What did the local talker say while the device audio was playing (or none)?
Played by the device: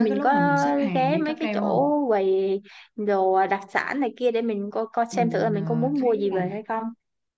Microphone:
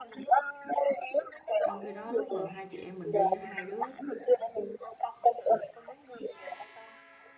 trong khi đó lúc mà hai chị em mình đi á, hai đứa